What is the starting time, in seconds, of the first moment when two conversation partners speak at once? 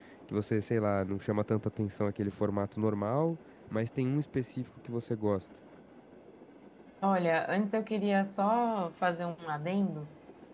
none

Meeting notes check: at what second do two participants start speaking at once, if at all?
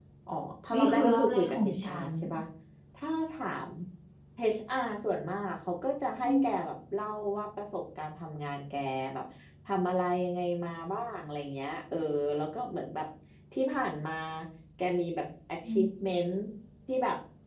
0.7 s

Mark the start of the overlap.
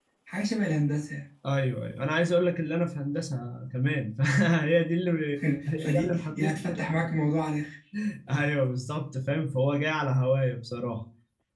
5.7 s

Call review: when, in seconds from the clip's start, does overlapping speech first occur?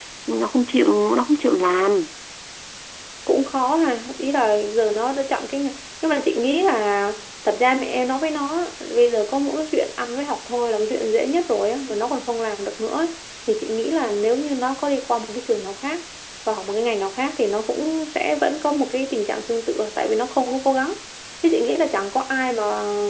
none

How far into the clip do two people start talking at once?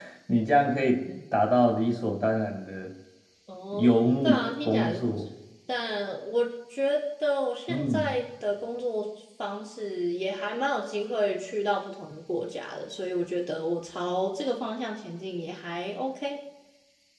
3.8 s

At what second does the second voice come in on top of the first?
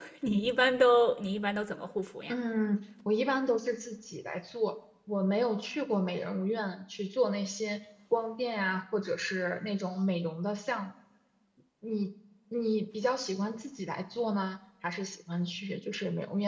none

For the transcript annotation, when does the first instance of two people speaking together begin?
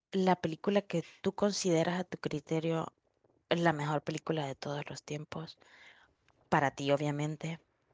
none

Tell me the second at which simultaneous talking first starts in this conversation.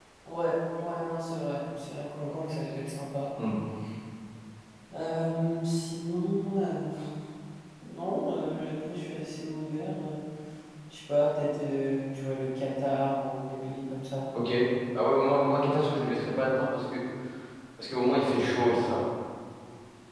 none

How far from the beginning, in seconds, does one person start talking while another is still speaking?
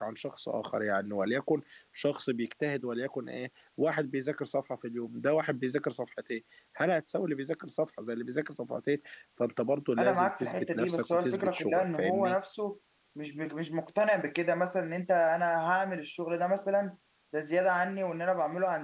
10.0 s

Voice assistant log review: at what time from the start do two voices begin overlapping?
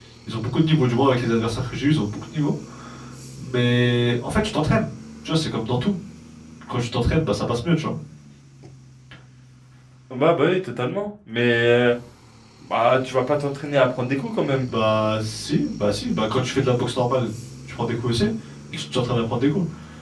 none

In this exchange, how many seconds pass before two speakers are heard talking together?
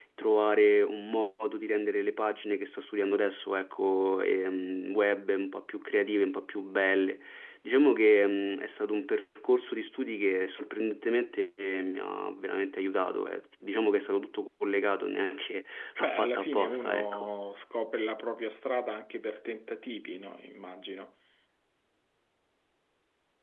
16.0 s

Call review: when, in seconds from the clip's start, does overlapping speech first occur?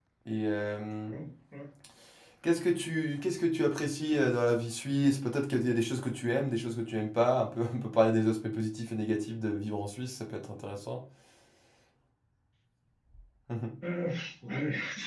none

